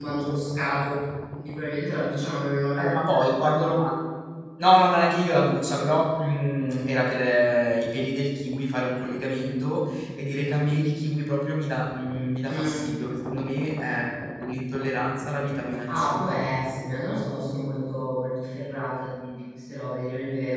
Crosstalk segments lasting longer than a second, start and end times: none

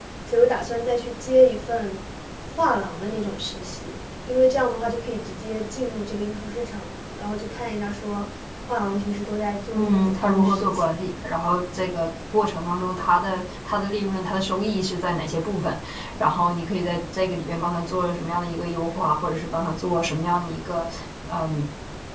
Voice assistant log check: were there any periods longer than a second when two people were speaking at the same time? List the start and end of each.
9.7-11.0

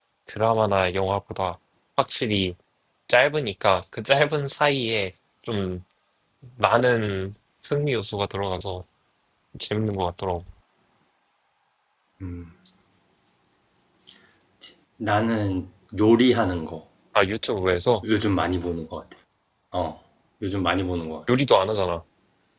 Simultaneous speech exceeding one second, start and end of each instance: none

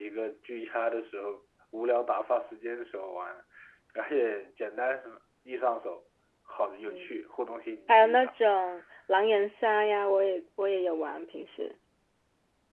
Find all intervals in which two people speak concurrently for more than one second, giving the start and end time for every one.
none

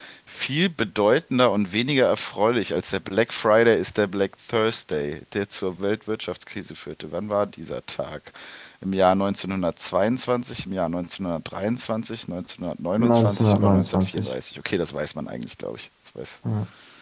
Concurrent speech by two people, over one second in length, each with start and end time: 13.0-14.3

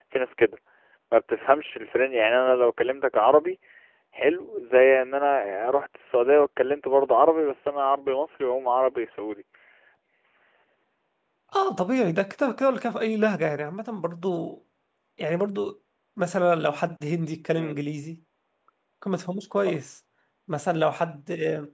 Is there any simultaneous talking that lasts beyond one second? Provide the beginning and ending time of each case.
none

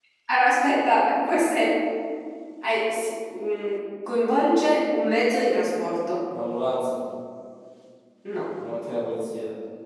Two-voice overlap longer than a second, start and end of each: none

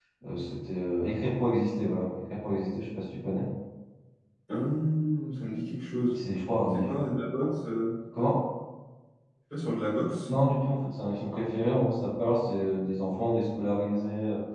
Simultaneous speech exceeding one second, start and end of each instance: none

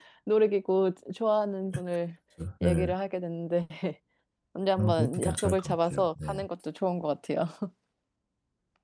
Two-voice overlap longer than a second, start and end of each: 4.8-6.4

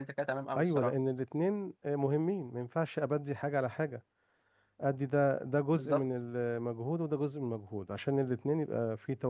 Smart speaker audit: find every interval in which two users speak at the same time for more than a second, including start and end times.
none

